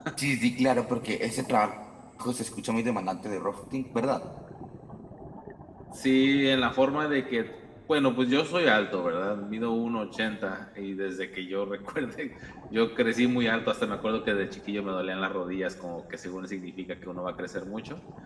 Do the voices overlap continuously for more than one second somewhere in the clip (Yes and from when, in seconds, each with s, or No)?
No